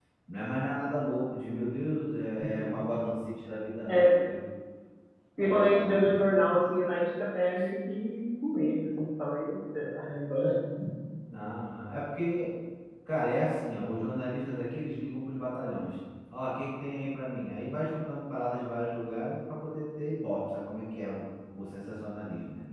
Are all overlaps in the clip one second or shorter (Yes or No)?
No